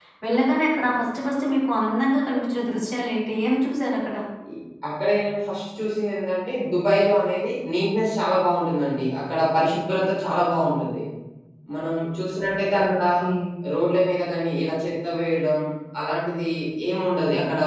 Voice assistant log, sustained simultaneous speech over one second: none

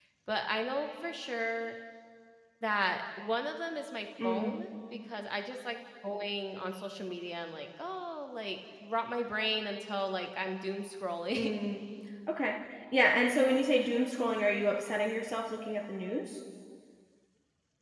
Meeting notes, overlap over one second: none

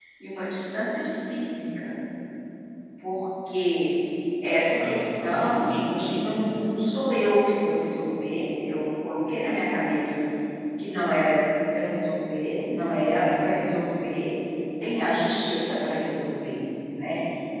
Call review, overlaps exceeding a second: present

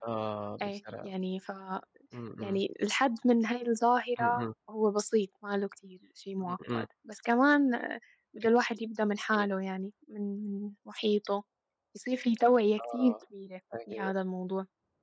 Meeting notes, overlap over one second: none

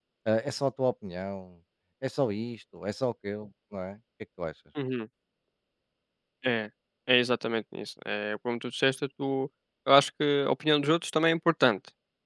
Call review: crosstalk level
none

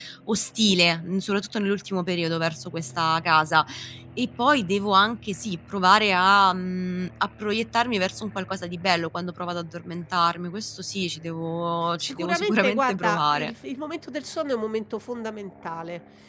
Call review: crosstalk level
present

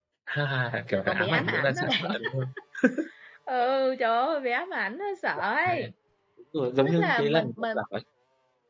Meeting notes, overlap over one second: present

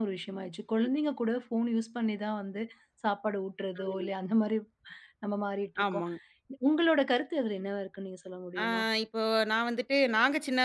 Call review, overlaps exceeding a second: none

